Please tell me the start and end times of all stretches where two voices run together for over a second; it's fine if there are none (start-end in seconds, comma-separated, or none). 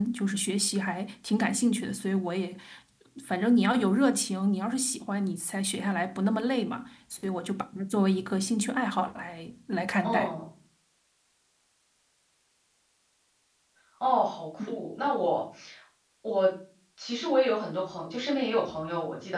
none